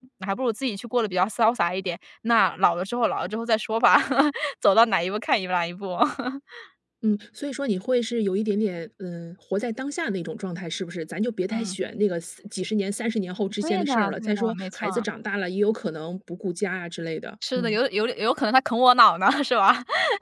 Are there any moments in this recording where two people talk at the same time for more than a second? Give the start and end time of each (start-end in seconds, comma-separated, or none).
13.6-15.0